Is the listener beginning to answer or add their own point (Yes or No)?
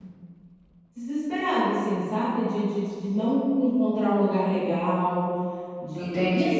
Yes